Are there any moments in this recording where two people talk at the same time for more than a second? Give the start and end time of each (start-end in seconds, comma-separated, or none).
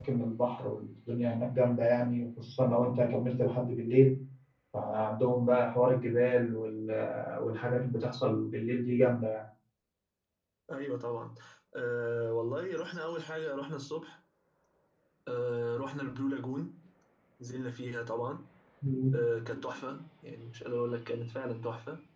none